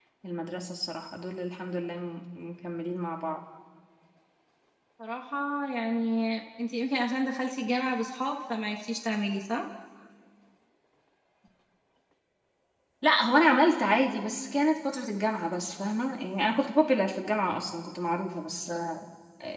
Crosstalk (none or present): none